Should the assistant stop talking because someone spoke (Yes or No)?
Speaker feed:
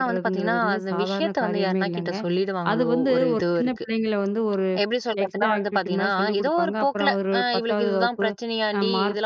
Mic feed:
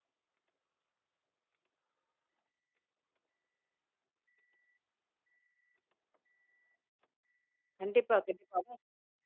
Yes